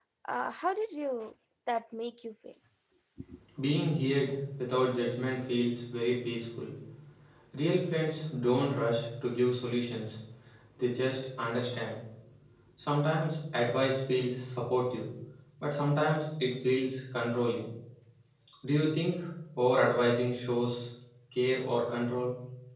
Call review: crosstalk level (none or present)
none